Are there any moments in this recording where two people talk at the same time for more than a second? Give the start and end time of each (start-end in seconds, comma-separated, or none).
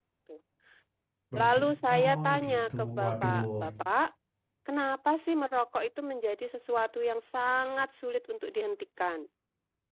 1.4-3.4